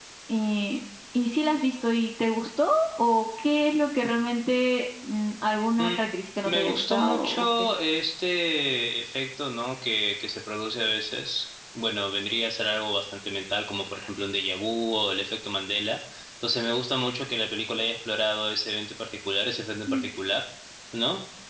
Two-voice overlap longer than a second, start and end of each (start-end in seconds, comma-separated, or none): 6.4-7.7